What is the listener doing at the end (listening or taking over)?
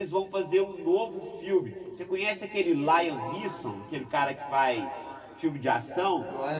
taking over